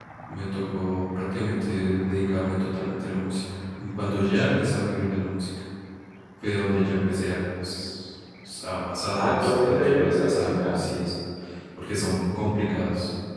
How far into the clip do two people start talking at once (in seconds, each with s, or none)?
9.1 s